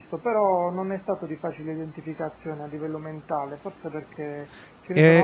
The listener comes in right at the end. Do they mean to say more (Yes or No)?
No